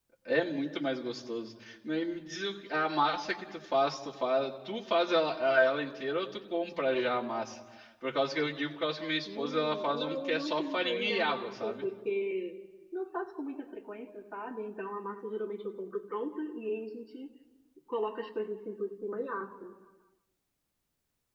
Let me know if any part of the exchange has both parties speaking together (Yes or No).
Yes